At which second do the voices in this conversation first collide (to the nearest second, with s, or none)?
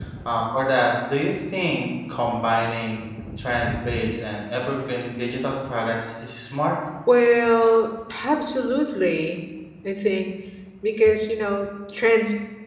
none